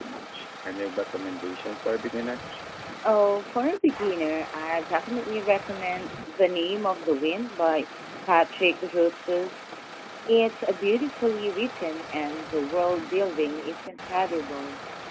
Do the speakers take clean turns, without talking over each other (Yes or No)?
Yes